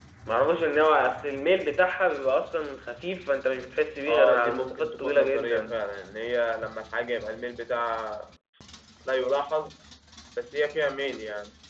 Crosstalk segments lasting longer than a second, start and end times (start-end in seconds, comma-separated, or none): 4.1-5.8